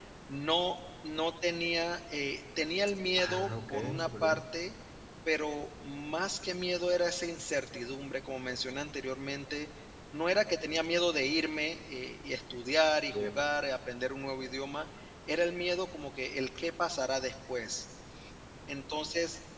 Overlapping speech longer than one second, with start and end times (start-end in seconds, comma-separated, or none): 3.2-4.4